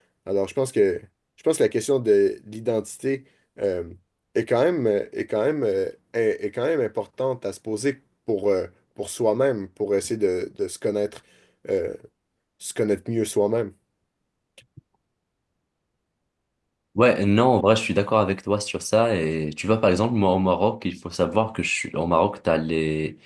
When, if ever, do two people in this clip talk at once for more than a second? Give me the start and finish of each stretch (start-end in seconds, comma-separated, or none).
none